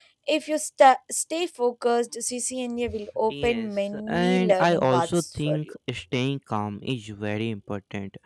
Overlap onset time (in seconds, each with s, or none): 3.3 s